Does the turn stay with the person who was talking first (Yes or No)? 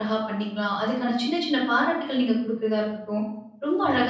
Yes